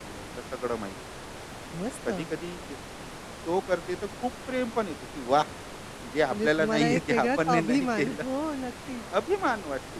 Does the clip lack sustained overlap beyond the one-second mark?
No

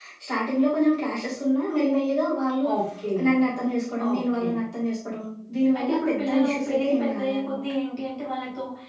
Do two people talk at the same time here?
Yes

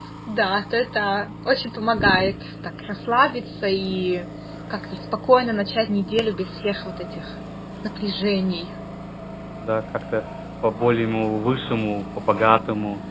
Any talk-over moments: No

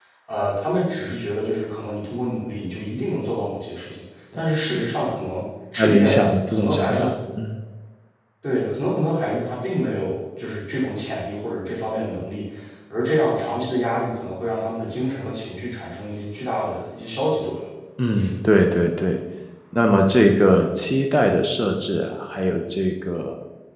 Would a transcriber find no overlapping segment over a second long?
No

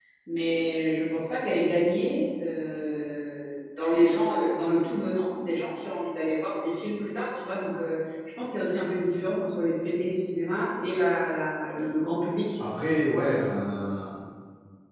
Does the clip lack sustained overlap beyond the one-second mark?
Yes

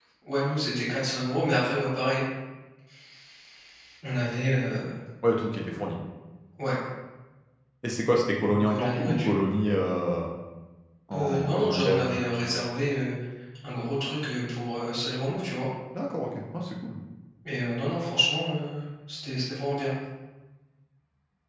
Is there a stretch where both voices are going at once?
Yes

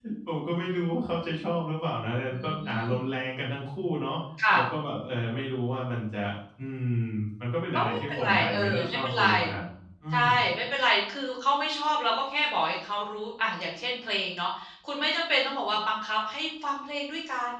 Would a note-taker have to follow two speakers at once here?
Yes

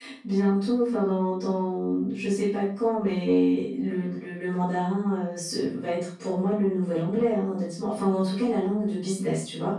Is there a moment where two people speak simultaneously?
No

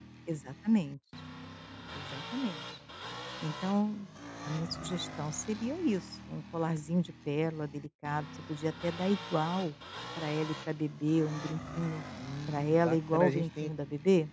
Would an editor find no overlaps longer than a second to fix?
No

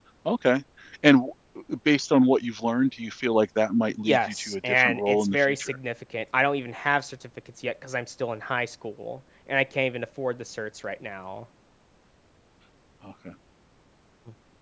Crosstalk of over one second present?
Yes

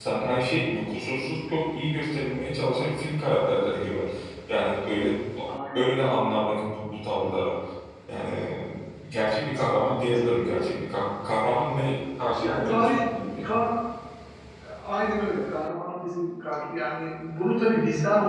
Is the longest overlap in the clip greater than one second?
Yes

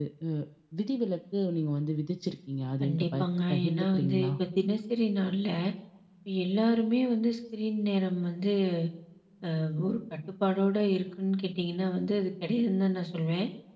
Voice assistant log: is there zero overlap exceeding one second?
No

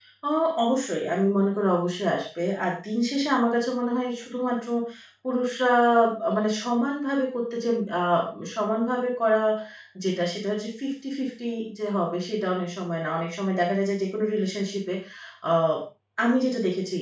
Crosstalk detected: No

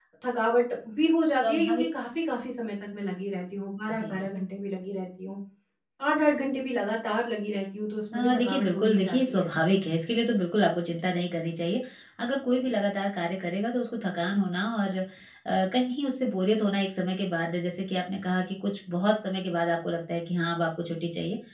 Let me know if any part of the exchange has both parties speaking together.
Yes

